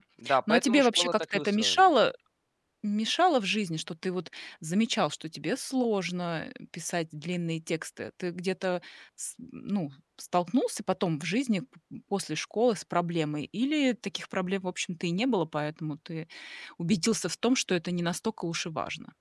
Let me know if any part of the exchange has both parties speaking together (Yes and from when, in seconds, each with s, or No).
Yes, from 0.5 s